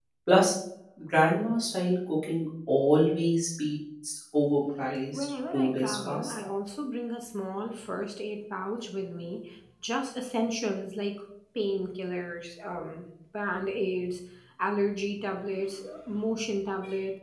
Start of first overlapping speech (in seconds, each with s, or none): 5.1 s